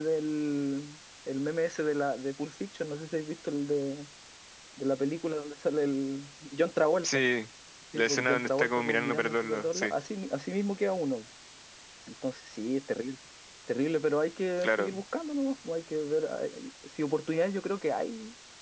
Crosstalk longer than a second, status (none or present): present